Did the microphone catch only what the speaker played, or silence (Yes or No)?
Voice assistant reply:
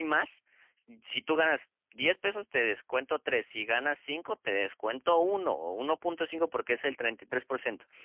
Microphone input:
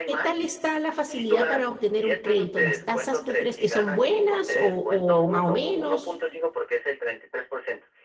No